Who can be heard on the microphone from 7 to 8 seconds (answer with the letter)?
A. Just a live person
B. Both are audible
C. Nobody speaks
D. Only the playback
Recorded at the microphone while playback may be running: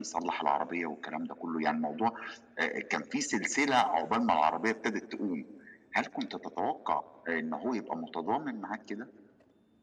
D